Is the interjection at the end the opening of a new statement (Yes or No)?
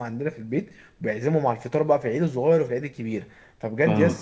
No